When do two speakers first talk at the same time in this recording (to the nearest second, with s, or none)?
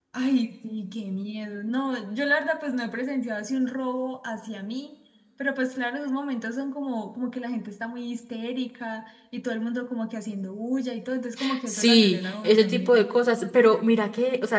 12 s